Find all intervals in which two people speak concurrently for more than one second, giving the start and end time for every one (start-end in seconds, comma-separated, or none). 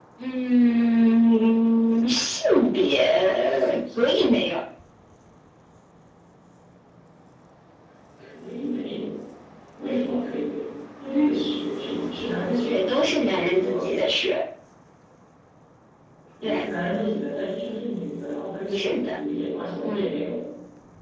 12.6-13.9